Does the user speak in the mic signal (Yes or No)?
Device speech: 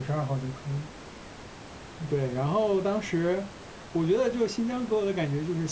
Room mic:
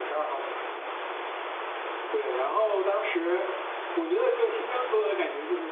No